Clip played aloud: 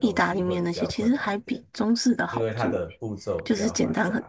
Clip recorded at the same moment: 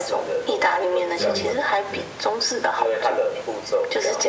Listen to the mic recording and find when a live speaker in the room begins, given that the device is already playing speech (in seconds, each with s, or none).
1.1 s